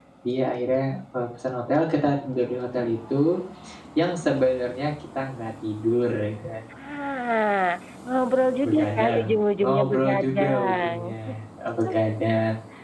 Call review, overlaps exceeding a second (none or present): present